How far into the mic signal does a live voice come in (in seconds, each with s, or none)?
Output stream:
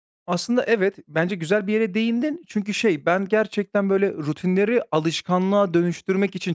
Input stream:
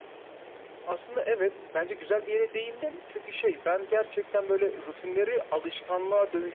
none